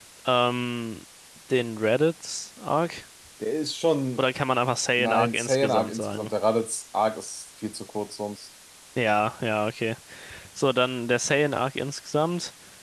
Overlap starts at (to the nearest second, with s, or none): 5 s